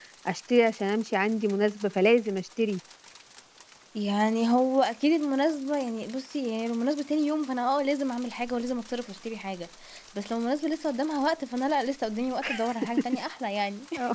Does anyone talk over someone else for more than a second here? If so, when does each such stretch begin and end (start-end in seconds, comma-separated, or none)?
none